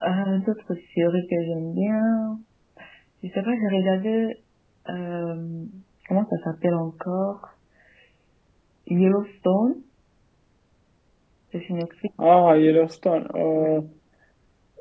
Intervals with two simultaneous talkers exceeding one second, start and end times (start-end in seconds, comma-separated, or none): none